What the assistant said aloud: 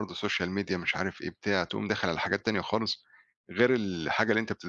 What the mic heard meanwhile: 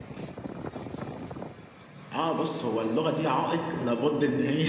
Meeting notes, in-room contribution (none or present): present